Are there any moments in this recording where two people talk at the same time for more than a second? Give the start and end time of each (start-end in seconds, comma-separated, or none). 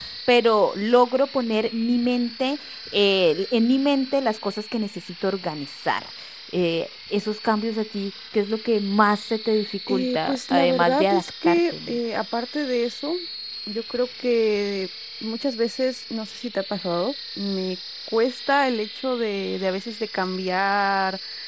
9.9-12.0